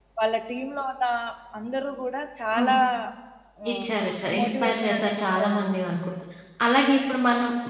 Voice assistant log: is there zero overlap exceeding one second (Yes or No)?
No